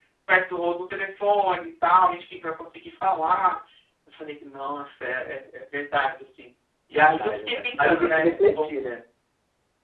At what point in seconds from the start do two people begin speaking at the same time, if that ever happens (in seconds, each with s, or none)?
7.0 s